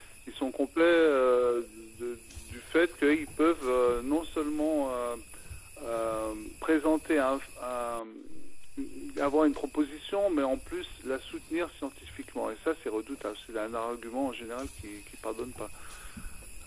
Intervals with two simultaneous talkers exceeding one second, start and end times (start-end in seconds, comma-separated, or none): none